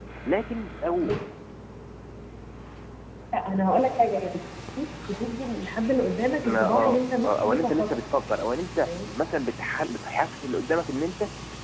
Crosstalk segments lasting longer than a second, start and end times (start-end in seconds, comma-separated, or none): 6.4-7.9